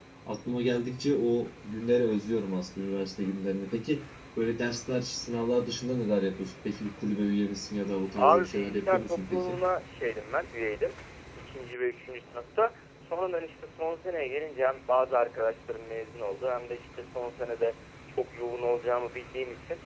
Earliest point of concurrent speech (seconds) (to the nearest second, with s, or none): 8 s